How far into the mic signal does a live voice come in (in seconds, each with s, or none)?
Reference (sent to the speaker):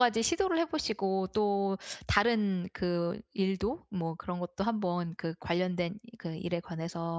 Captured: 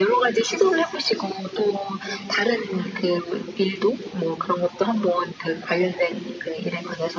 none